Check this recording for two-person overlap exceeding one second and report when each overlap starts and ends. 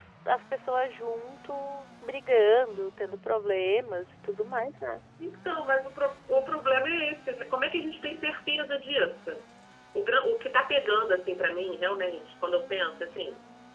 none

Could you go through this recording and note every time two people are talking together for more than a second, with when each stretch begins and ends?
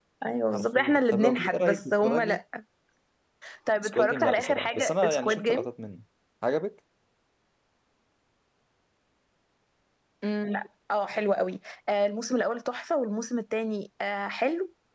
0.5-2.4, 3.8-5.7

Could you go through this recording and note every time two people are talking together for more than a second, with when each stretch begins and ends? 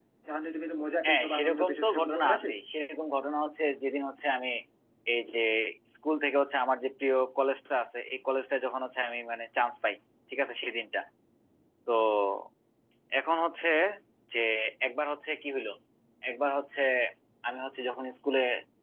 1.0-2.5

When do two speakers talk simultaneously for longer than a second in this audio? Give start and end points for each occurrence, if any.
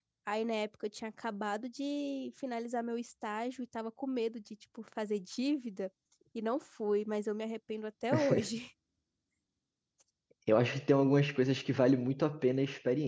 none

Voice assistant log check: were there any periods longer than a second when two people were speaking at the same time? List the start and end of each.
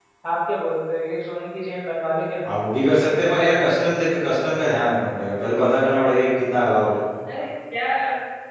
none

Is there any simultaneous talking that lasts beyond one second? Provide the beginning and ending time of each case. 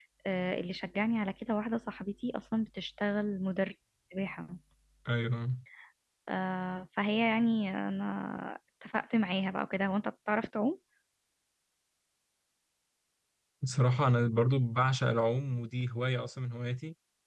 none

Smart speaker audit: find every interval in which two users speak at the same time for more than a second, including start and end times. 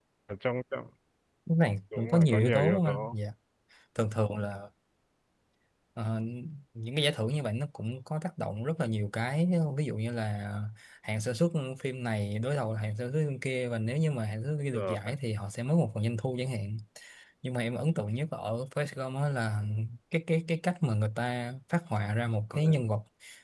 2.0-3.2

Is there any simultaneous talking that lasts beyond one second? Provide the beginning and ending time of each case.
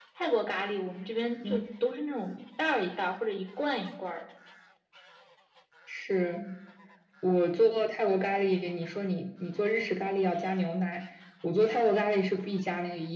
none

